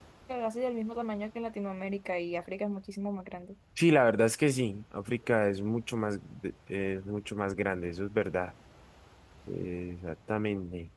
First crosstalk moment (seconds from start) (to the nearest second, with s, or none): none